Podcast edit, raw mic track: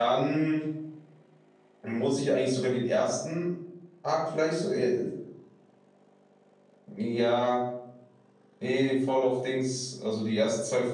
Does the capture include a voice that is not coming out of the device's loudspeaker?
Yes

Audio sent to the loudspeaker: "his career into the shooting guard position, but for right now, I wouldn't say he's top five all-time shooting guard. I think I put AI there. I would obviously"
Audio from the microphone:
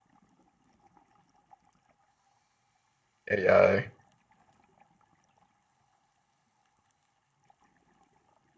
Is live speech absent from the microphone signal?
No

